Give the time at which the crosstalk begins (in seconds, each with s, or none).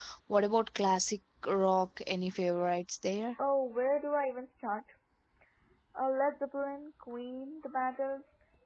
none